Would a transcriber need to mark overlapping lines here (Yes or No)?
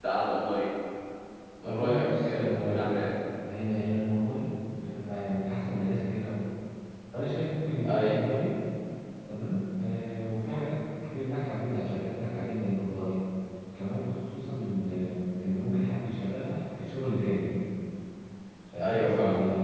Yes